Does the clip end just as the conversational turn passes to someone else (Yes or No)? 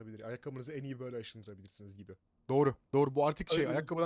No